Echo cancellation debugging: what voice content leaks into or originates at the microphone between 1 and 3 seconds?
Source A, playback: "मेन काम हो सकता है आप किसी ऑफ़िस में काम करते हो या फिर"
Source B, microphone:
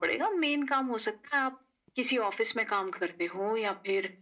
echo only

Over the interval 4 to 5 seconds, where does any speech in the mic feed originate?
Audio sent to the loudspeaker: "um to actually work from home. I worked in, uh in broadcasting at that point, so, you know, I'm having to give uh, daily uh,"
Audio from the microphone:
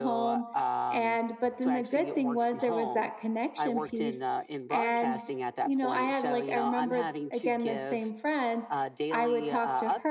both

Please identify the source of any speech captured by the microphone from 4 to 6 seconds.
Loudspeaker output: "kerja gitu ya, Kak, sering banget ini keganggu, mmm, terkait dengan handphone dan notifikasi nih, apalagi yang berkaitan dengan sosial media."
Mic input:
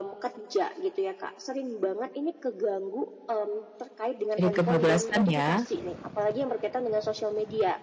both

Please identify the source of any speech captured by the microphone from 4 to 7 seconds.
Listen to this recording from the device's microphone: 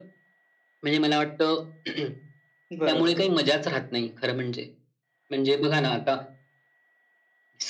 echo only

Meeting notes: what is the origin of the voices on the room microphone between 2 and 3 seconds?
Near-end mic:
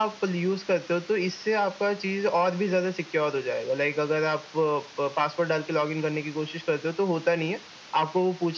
echo only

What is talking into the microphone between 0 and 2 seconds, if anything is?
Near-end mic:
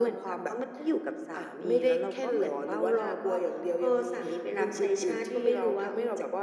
echo only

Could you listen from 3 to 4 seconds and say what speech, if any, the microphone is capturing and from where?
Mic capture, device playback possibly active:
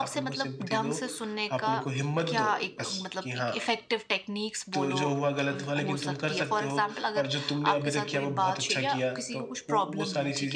both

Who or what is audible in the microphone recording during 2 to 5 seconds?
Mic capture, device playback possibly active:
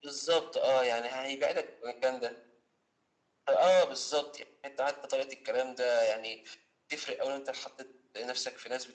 echo only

